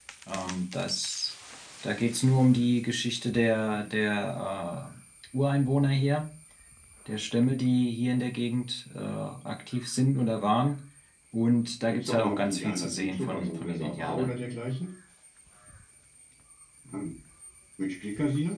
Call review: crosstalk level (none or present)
present